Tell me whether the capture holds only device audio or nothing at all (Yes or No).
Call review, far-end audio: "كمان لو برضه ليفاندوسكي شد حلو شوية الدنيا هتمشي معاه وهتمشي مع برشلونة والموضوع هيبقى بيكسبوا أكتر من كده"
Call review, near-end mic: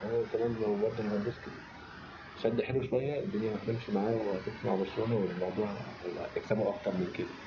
Yes